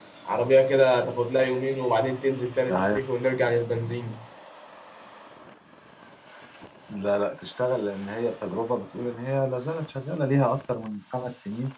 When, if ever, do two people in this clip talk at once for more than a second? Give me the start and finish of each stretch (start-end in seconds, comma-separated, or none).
none